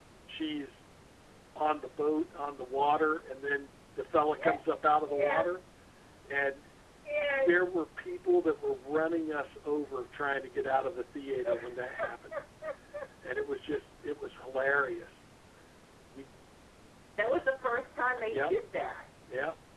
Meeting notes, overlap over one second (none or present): none